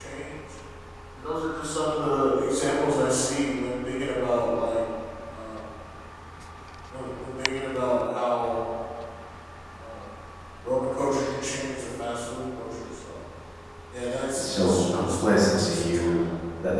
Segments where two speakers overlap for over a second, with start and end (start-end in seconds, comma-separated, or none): 14.4-16.3